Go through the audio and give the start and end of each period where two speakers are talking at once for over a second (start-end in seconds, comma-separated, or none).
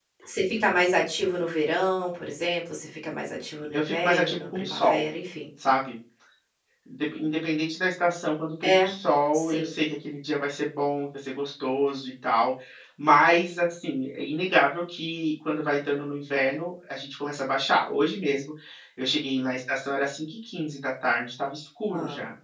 3.7-5.0